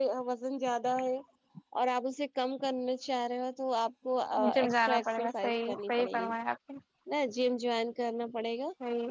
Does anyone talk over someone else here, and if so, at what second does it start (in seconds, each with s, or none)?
4.4 s